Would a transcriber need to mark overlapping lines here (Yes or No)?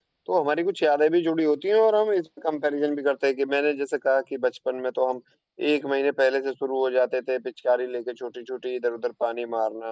No